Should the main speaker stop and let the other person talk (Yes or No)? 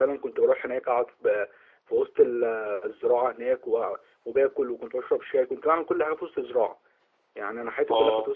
No